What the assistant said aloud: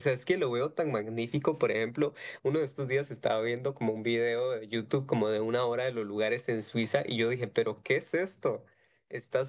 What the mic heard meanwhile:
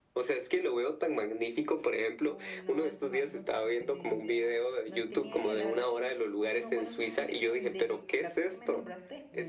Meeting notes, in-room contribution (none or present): present